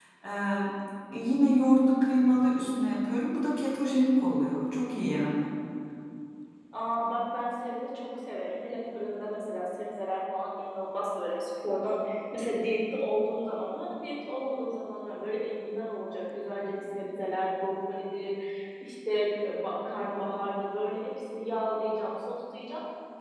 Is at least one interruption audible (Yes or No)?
No